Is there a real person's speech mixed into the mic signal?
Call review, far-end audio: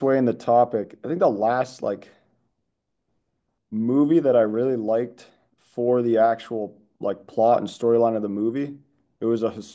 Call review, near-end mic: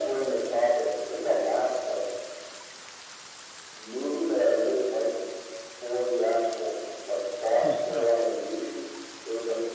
Yes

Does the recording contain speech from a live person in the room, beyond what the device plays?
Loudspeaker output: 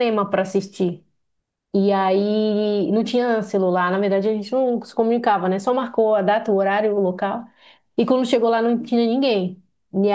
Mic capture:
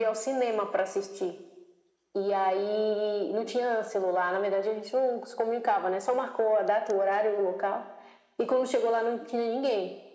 No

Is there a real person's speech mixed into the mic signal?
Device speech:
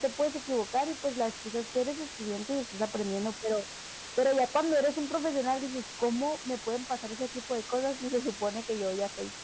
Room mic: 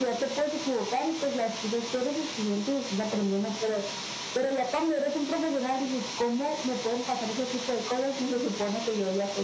No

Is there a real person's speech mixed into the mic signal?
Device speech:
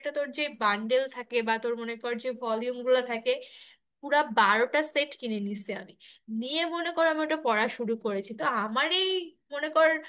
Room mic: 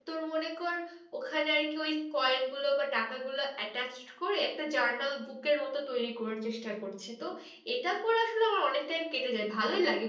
Yes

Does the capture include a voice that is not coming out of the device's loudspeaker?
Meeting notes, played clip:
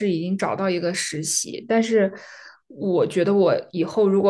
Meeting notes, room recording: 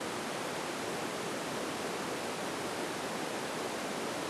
No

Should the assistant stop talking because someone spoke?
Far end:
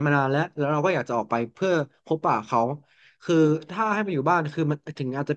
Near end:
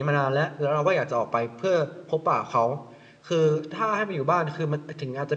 No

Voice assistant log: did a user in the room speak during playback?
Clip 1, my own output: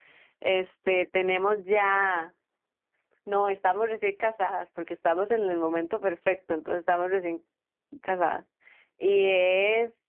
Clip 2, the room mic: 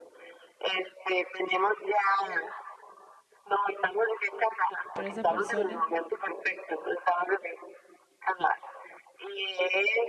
Yes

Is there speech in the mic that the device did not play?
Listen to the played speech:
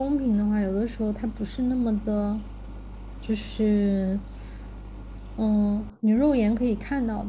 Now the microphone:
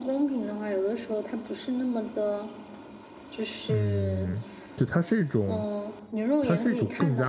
Yes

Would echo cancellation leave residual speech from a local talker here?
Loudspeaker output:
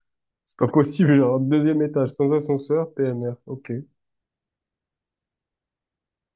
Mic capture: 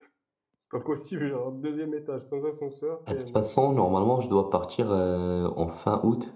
Yes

